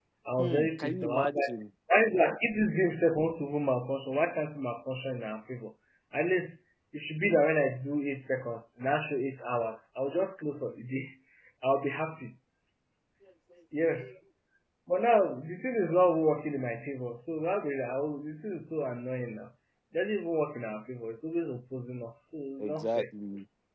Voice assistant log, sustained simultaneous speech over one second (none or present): present